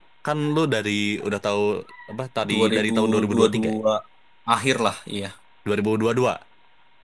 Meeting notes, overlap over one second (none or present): present